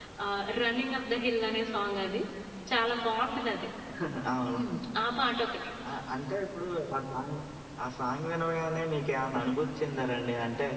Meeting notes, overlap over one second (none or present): none